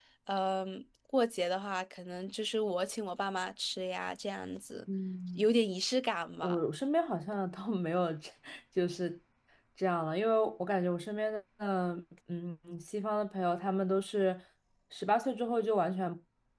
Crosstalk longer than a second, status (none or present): none